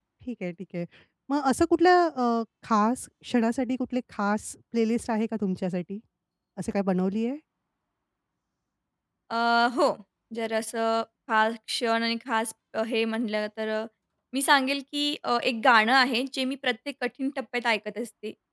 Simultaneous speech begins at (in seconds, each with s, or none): none